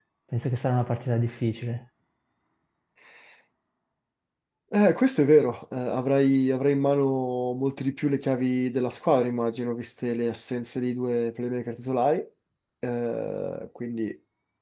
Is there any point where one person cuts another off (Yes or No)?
No